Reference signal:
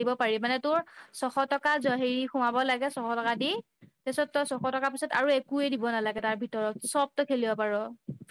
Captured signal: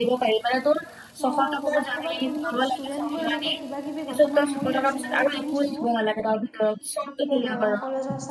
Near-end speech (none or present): present